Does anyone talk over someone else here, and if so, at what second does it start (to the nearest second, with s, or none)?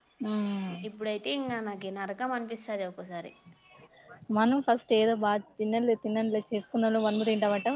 none